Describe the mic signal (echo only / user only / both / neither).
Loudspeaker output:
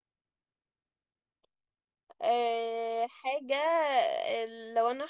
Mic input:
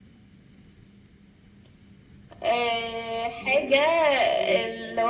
both